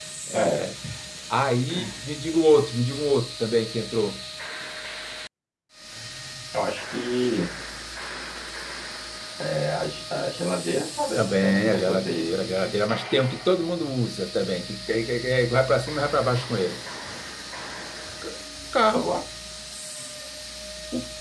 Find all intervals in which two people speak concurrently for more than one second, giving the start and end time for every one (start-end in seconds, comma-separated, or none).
11.2-12.4